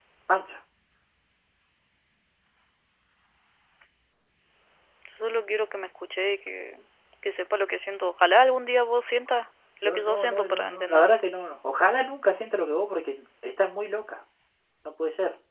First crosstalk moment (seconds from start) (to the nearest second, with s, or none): 10 s